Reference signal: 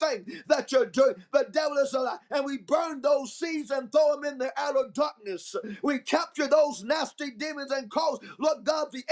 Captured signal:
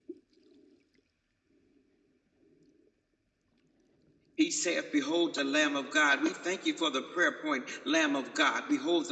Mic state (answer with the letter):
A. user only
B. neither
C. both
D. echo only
A